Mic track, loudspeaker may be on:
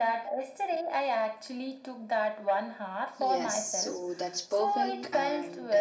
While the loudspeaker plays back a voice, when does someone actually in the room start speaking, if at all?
3.2 s

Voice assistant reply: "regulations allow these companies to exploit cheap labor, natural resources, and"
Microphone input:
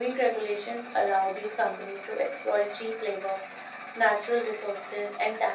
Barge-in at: none

